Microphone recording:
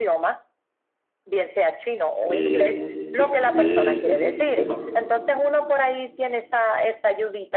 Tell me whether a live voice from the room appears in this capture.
Yes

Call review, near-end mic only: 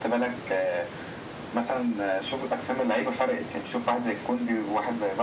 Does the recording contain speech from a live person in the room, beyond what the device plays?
No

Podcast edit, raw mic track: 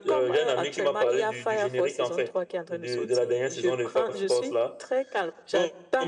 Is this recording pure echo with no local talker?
Yes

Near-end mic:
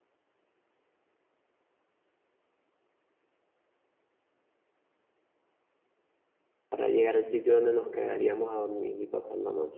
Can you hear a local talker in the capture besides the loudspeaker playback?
Yes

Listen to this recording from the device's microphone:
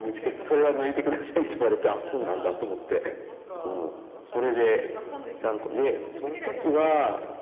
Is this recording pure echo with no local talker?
No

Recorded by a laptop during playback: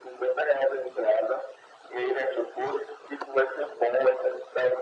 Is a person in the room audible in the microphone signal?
No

